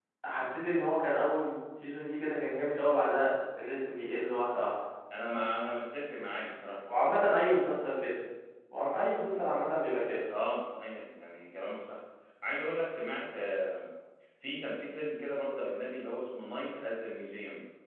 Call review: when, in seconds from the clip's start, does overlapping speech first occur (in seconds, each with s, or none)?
none